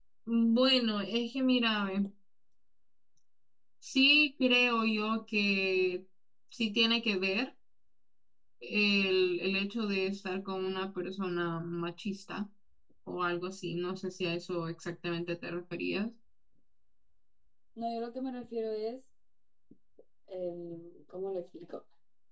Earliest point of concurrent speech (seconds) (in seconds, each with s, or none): none